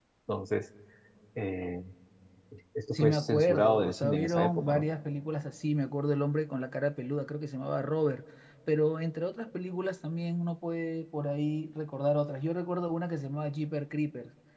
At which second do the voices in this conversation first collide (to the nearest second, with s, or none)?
3 s